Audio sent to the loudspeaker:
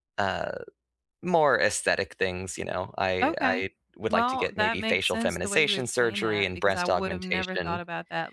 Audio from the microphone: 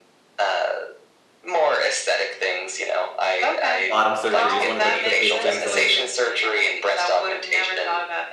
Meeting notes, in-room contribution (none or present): present